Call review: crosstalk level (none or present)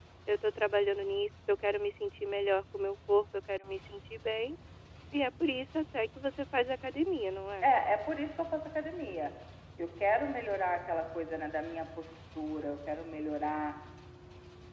none